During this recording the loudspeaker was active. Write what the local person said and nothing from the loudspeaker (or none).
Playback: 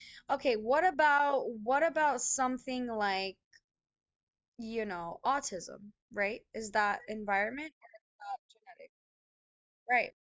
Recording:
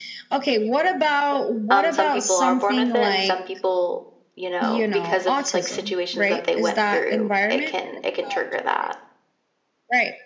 Um, some people are born with it, and some people, you know, because of like situations that they went through, it can it can trigger that.